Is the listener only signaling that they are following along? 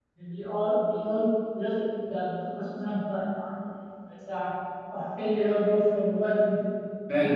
No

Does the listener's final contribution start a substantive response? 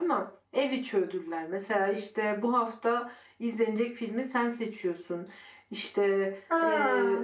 No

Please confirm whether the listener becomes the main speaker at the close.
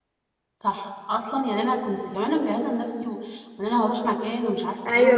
No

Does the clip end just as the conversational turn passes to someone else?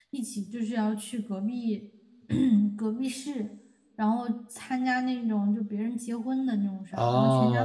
Yes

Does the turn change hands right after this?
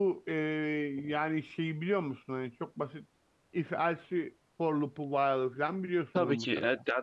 Yes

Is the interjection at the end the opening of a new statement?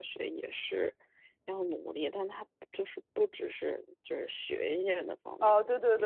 Yes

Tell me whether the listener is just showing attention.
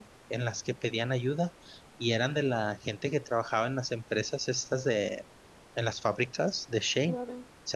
Yes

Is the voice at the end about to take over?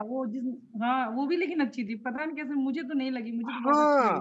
Yes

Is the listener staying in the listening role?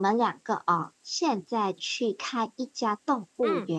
Yes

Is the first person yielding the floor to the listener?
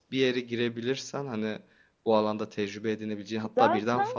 No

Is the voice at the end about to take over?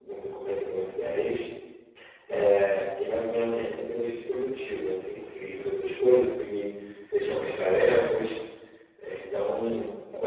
No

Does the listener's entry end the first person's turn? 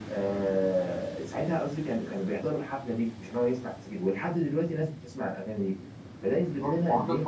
Yes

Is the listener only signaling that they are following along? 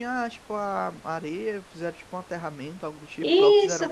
No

